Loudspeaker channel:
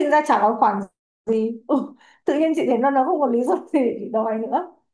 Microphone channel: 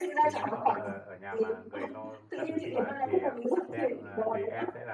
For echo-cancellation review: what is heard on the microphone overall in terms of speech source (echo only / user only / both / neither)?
both